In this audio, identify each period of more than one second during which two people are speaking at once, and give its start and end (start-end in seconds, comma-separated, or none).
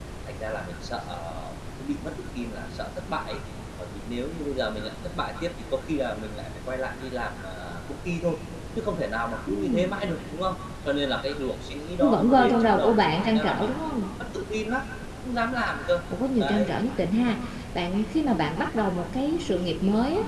12.0-13.9